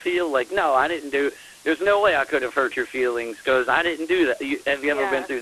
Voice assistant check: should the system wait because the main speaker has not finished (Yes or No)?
No